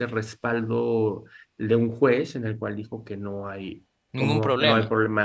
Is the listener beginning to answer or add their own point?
No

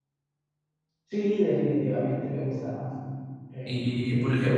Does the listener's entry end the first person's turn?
Yes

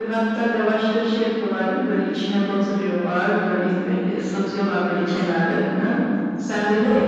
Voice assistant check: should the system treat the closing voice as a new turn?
No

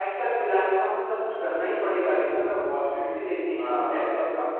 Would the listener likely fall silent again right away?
Yes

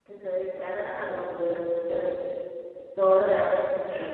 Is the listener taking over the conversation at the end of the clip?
Yes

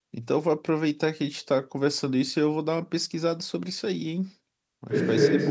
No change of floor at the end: No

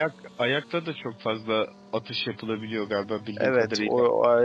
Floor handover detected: Yes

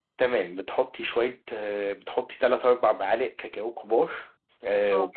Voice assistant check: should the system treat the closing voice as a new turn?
No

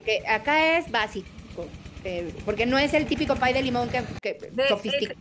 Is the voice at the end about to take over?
Yes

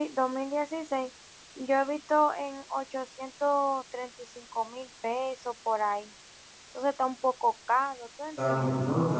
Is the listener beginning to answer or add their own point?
Yes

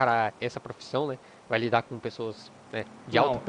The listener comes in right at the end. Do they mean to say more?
Yes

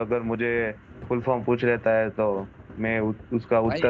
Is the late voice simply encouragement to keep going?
No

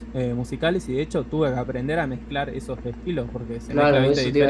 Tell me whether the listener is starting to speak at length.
Yes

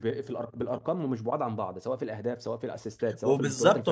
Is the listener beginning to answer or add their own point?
Yes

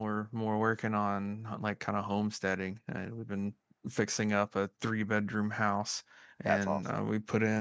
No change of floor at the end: Yes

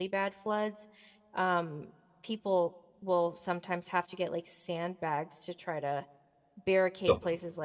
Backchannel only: Yes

